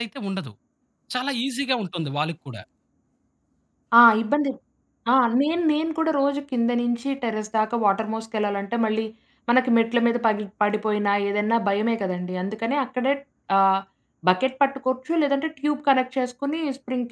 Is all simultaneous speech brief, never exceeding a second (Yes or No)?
Yes